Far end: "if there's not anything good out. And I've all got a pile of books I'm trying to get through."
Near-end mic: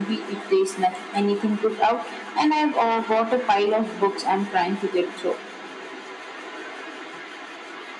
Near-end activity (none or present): none